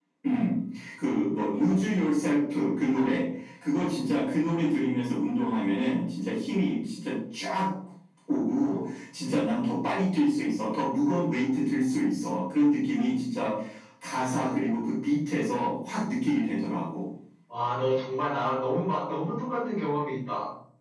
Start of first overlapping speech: none

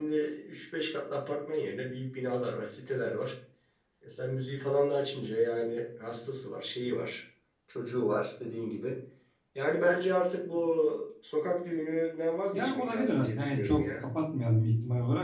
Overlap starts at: 13 s

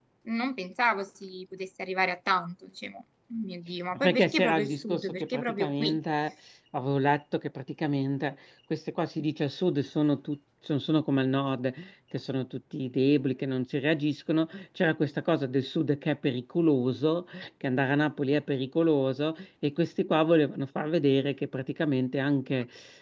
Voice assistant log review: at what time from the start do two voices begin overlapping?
4 s

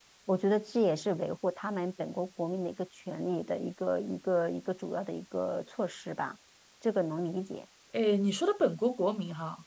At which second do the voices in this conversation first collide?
none

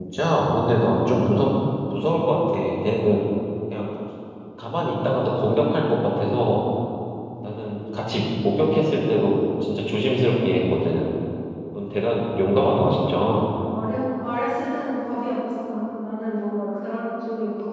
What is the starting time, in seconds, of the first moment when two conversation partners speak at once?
none

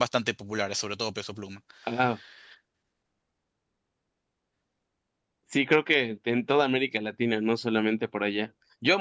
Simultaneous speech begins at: none

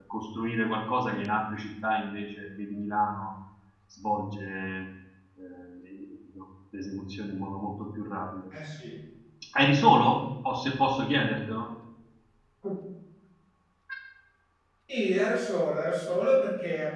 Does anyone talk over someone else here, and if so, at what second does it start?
none

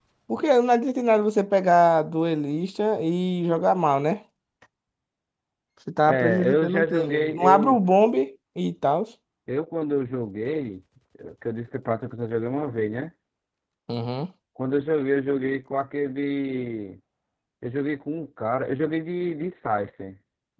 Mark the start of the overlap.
6 s

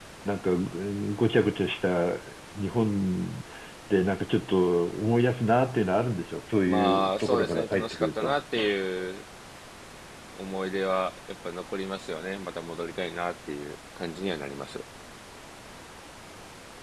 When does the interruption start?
7 s

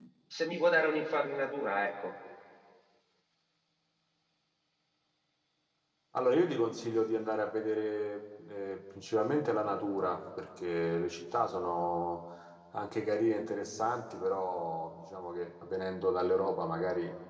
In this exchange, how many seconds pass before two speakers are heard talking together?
none

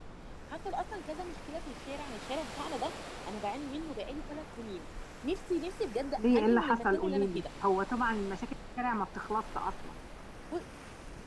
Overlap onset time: 6 s

